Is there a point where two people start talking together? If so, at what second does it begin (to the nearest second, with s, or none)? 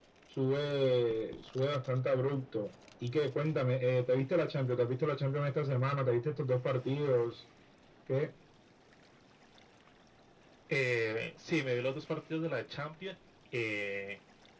none